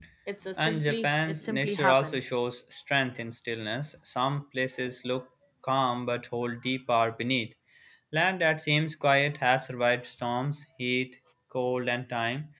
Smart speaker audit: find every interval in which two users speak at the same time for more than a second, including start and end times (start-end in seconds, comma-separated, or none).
0.6-2.3